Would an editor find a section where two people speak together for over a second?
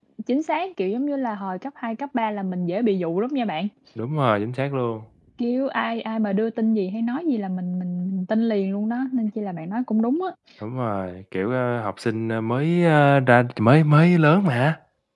No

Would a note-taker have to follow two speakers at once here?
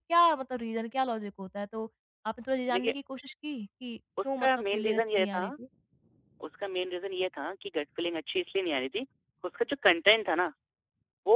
Yes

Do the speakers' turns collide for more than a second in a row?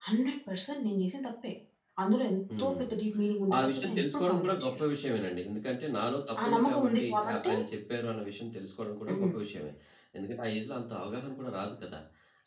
Yes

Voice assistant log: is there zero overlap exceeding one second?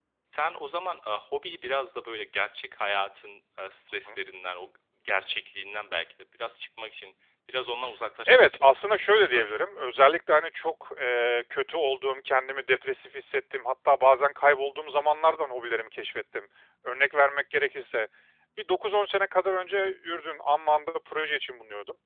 No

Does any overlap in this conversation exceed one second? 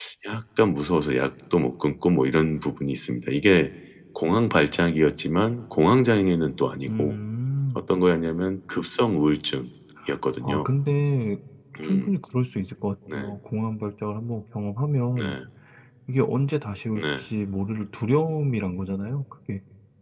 No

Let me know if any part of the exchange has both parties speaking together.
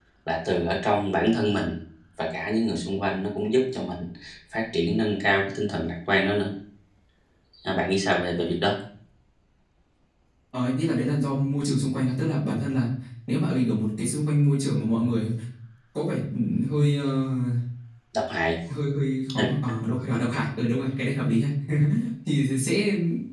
No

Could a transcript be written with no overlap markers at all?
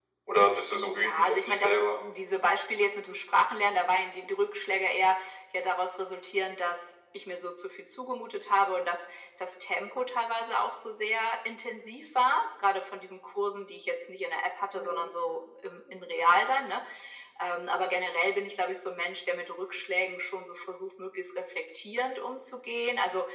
No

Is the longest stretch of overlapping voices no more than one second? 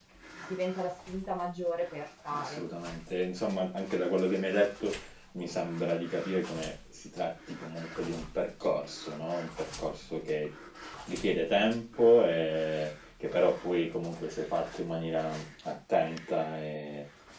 Yes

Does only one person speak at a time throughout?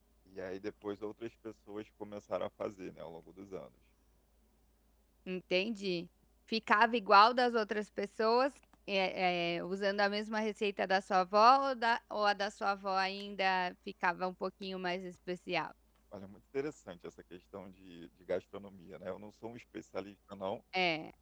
Yes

